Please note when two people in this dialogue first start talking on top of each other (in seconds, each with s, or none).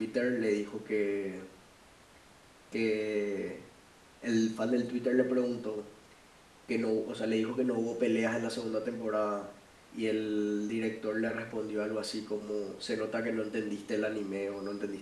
none